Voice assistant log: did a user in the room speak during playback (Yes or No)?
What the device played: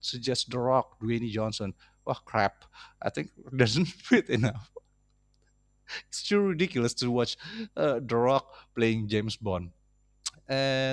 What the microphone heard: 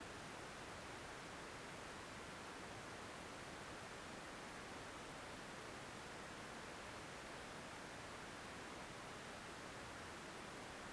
No